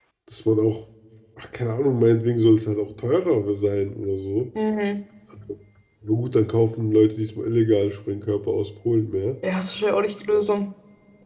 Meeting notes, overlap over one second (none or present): none